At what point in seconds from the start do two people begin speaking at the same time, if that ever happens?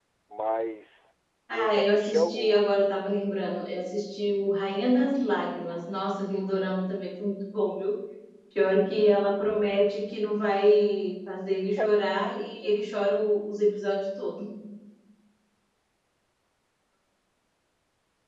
1.5 s

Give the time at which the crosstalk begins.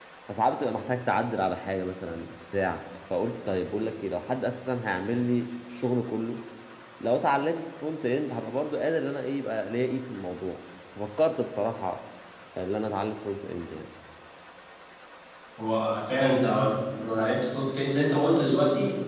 none

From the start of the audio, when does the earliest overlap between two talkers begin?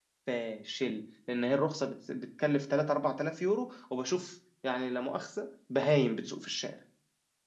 none

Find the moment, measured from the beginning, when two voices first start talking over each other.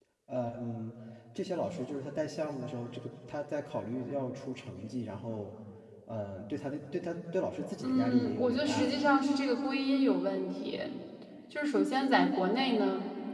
7.8 s

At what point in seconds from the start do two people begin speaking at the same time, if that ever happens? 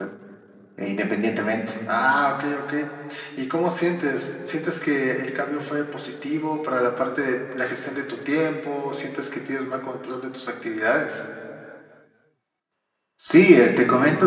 none

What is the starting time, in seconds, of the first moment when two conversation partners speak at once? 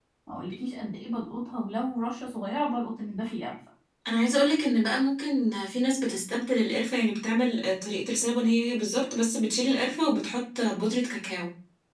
none

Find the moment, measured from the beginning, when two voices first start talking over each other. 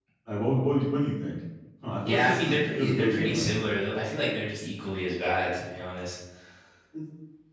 2.1 s

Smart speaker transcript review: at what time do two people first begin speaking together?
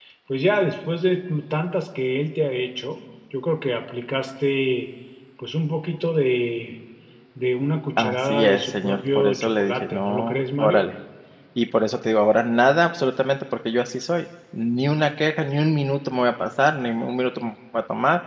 8.0 s

